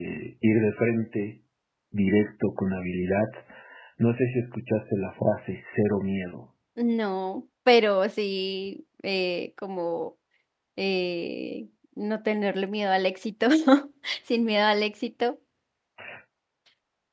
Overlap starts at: none

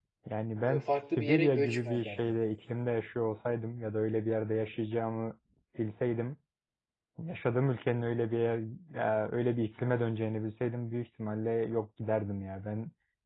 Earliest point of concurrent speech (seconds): 1 s

